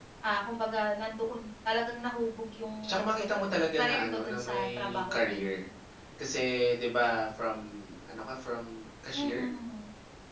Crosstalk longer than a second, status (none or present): present